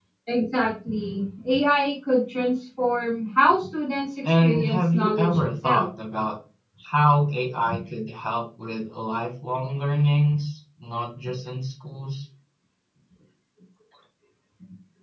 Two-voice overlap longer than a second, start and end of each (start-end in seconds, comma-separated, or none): 4.2-5.9